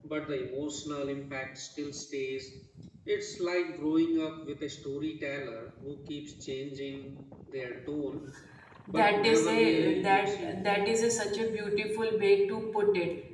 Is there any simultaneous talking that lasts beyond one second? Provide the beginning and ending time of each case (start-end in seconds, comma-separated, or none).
8.9-10.7